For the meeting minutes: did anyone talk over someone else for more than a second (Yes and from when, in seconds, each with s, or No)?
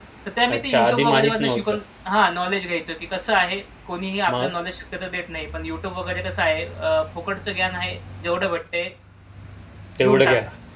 Yes, from 0.6 s